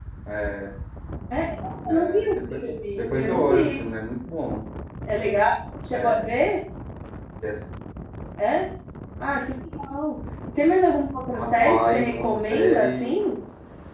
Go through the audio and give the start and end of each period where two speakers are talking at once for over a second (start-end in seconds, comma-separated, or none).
1.9-3.8, 11.3-13.2